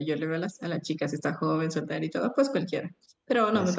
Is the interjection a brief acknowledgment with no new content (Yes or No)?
Yes